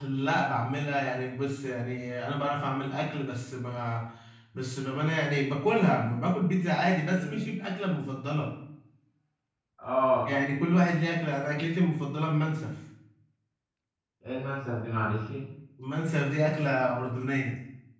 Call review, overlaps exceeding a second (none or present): none